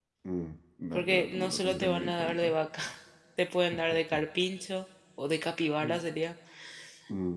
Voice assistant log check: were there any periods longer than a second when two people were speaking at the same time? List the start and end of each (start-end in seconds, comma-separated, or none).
0.9-2.5